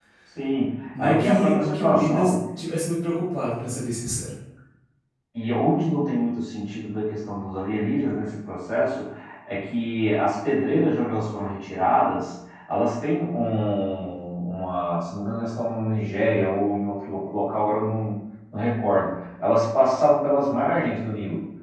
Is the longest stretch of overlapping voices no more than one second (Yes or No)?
No